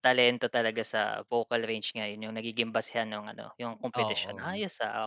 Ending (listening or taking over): listening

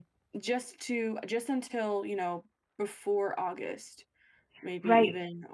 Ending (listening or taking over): taking over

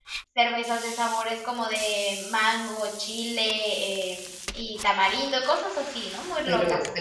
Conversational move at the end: taking over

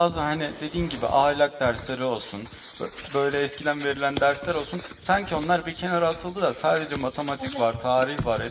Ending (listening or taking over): listening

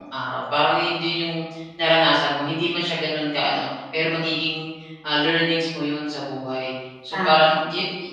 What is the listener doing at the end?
listening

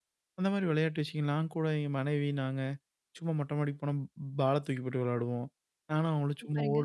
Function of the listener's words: listening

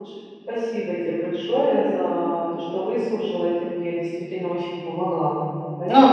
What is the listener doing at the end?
taking over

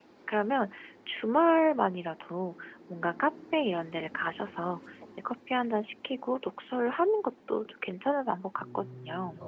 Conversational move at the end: taking over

